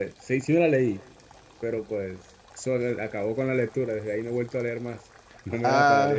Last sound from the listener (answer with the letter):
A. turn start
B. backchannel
A